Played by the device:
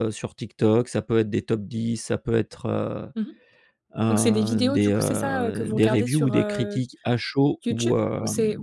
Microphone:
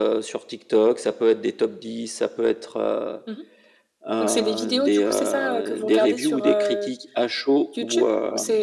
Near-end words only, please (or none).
none